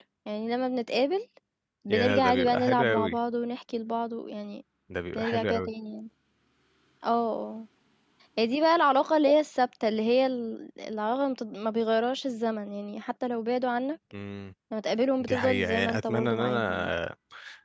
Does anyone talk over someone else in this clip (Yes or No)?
Yes